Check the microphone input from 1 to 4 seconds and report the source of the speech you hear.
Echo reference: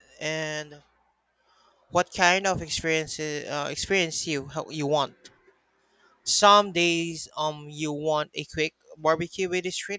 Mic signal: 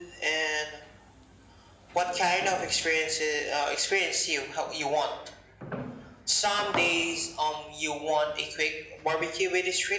echo only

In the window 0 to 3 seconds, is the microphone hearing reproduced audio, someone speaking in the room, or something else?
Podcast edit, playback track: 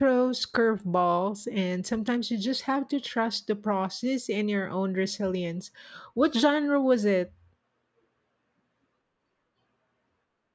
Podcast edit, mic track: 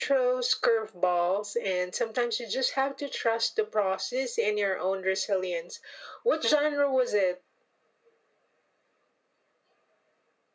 echo only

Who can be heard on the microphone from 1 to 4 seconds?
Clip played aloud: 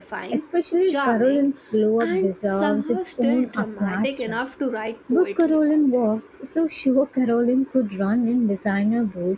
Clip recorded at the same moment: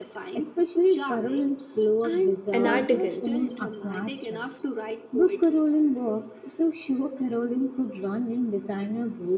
both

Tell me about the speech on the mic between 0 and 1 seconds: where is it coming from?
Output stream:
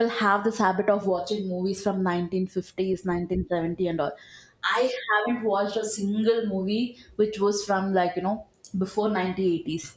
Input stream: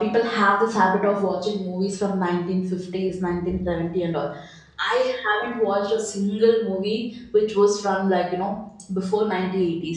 echo only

